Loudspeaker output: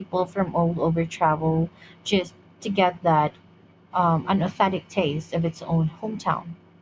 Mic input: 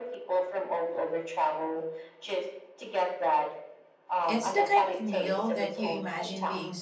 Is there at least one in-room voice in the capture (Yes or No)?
Yes